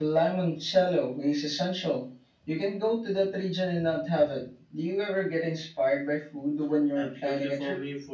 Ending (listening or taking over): taking over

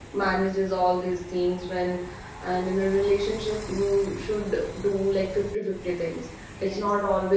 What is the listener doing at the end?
listening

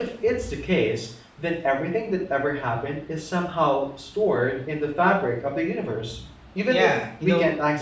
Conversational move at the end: taking over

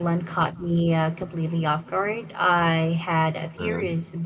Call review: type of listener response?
listening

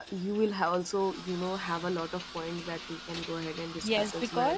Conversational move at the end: taking over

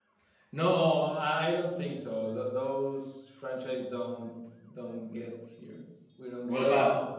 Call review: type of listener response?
taking over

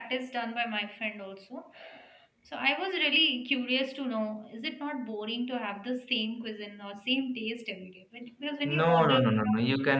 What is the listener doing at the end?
taking over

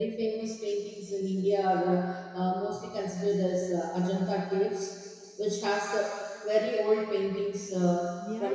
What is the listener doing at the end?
taking over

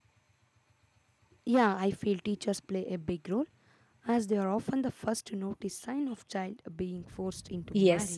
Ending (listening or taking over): taking over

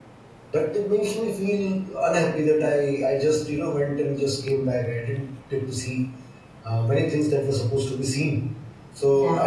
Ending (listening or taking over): listening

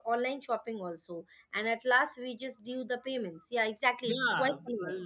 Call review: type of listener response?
taking over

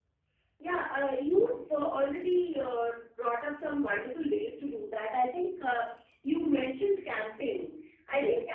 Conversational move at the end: listening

